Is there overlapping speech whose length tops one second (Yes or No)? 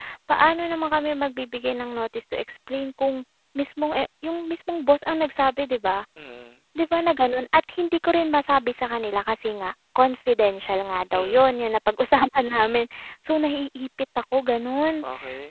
No